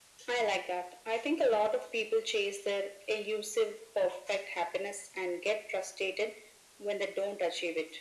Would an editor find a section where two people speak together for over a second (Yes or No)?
No